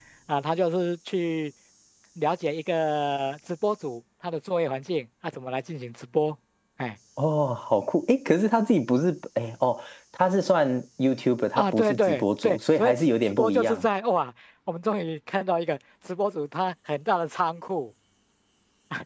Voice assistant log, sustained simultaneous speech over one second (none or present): present